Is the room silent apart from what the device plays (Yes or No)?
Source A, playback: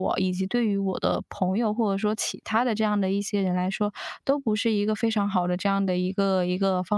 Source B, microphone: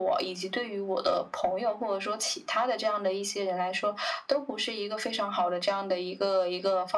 Yes